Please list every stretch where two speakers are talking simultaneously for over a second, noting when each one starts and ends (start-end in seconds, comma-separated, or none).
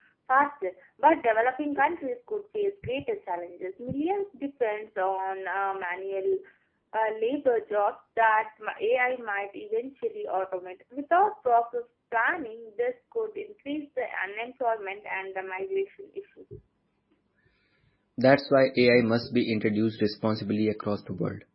none